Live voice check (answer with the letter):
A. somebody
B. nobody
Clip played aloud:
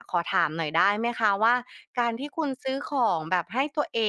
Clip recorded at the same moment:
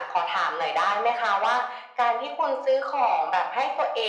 B